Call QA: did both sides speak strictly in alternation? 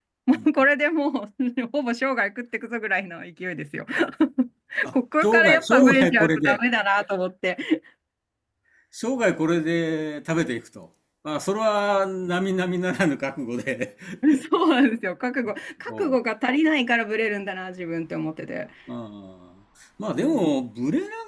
No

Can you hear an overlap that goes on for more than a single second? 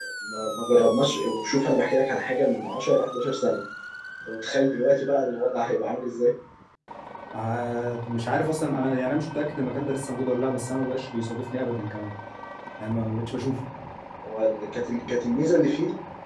No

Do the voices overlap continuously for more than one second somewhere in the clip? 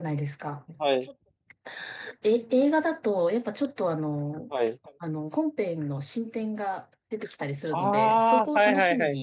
Yes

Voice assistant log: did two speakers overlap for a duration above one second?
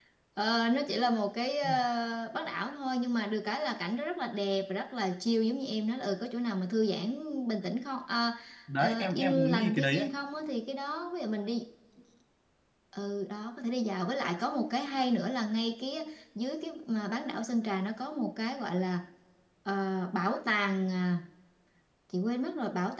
Yes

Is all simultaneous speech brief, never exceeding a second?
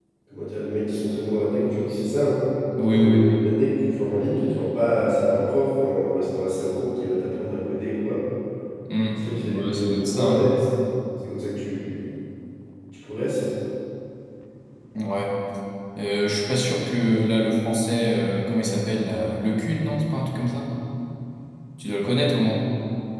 No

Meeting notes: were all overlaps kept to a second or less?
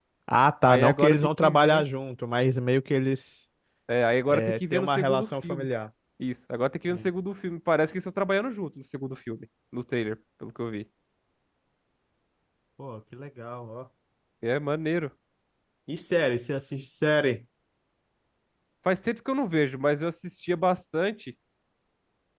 No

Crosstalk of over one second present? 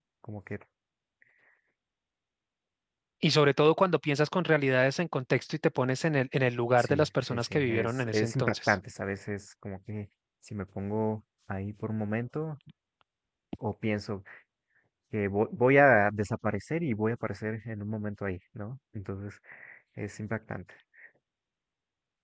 Yes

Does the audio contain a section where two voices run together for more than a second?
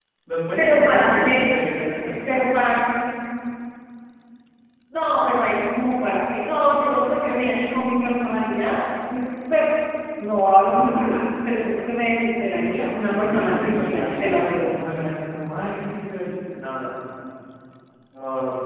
Yes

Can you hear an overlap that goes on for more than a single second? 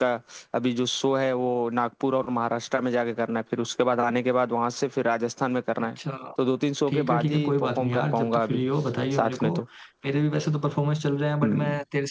Yes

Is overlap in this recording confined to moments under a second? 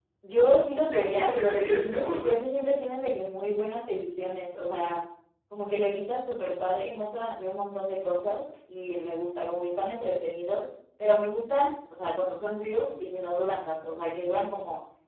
No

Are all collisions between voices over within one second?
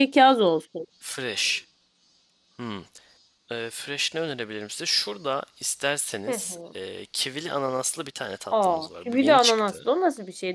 No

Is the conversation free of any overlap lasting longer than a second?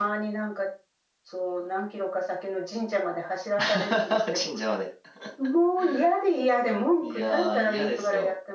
No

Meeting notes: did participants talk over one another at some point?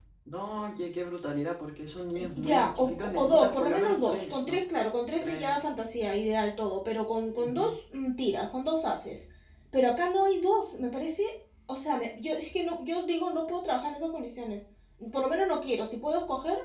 Yes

